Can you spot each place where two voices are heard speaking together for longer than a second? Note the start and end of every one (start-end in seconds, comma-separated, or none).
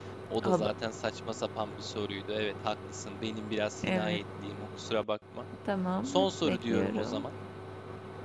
6.0-7.2